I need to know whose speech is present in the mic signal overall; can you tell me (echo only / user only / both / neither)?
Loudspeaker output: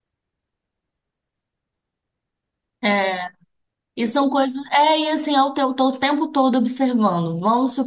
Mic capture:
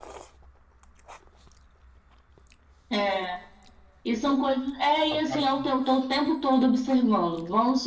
both